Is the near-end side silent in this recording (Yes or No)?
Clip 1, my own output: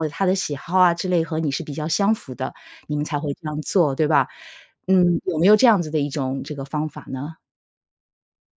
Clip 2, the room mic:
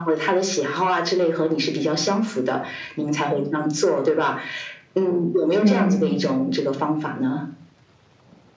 No